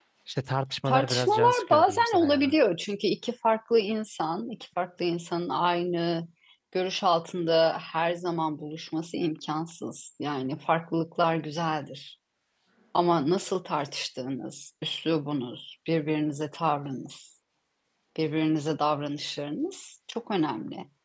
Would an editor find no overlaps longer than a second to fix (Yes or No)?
No